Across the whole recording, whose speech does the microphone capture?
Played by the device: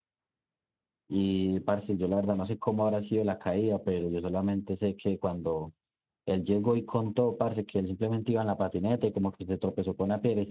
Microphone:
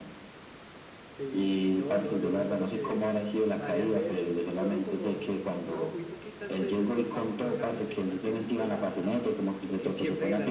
both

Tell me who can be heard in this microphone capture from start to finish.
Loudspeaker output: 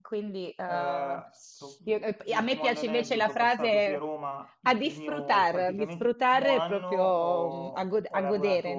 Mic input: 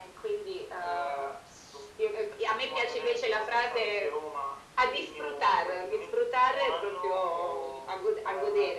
echo only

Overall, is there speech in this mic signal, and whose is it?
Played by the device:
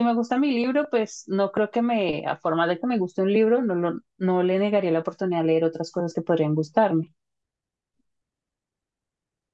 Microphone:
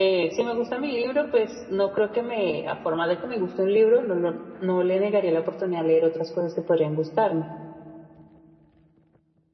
echo only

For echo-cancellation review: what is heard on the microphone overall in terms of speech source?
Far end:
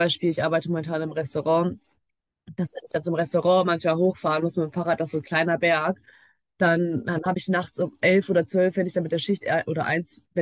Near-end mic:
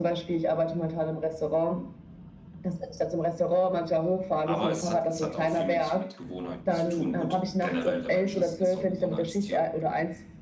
both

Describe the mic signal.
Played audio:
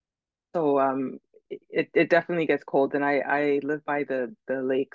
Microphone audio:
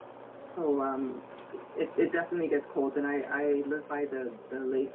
echo only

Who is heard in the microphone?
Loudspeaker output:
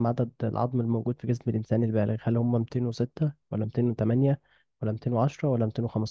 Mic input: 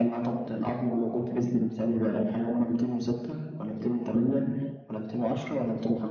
echo only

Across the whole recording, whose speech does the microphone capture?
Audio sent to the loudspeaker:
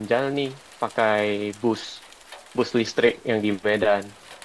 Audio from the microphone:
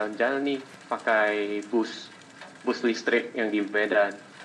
echo only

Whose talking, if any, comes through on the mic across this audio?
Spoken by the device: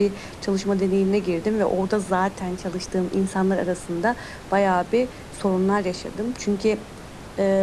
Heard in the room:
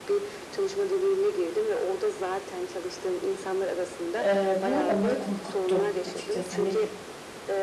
both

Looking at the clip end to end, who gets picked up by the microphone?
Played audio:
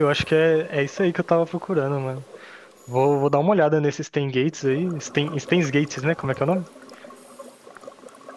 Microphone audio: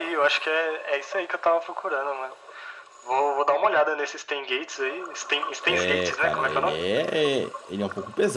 both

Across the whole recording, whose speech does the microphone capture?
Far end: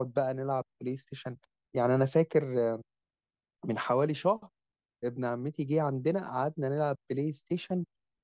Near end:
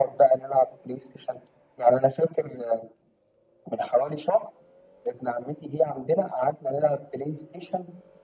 echo only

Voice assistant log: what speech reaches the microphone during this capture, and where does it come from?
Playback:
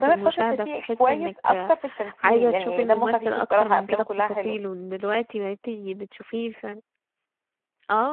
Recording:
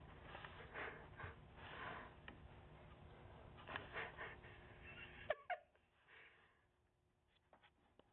neither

